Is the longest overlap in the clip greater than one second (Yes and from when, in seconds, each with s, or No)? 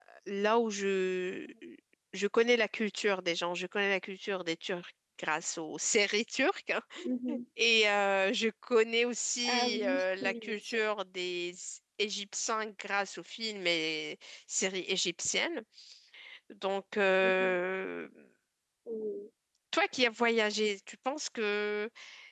Yes, from 9.4 s